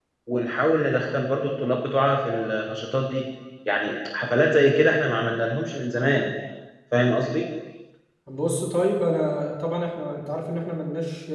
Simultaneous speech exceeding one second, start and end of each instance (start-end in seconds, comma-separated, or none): none